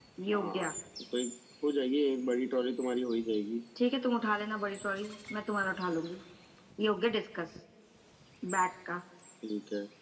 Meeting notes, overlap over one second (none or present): none